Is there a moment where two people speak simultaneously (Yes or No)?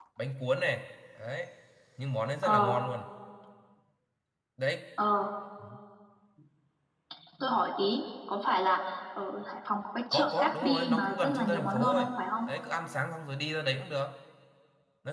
Yes